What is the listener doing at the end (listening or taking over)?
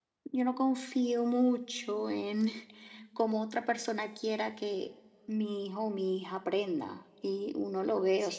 taking over